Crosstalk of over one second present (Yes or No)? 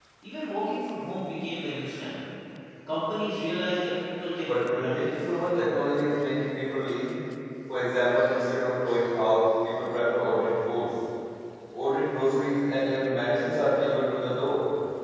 Yes